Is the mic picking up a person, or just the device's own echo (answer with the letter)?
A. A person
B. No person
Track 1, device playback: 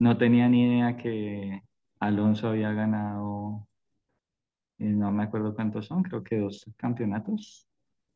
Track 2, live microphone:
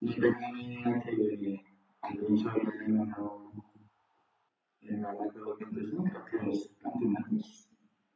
B